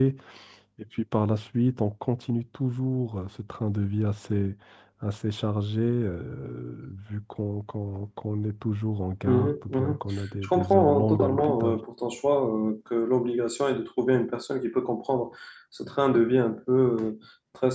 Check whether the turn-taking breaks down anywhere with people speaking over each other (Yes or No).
Yes